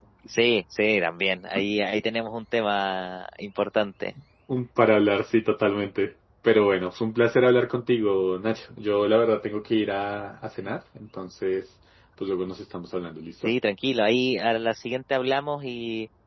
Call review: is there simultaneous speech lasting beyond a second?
No

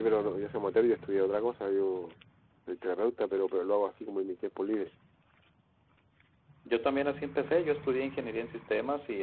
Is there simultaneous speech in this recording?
No

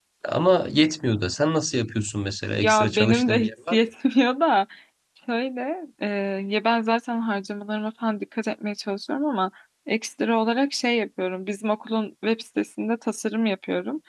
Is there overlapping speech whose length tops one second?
Yes, from 2.6 s

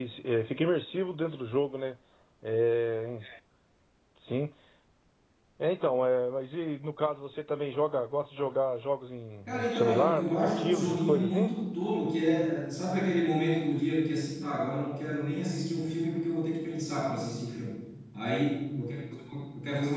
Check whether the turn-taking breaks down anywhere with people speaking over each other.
Yes, from 9.5 s

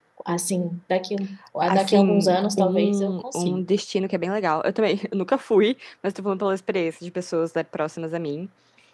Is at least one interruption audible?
Yes, from 1.7 s

